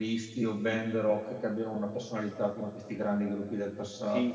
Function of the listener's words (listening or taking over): taking over